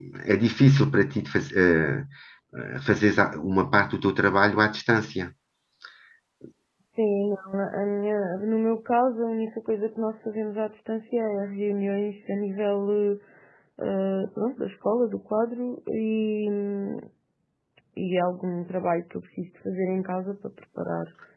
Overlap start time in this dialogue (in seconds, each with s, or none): none